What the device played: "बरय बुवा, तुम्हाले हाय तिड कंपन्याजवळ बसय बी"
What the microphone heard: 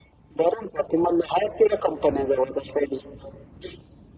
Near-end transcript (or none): none